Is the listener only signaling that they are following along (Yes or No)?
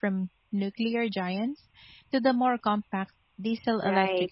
No